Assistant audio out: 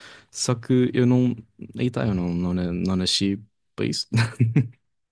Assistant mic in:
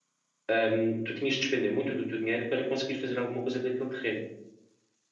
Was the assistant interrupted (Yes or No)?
Yes